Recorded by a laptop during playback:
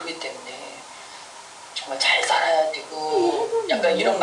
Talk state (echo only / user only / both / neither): both